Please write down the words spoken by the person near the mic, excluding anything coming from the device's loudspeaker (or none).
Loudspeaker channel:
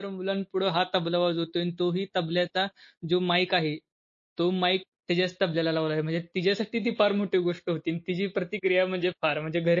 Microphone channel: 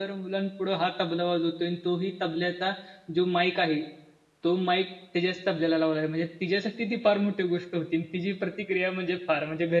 none